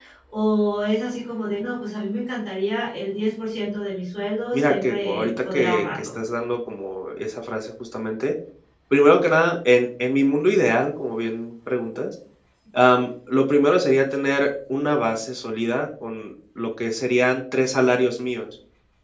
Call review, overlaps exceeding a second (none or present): present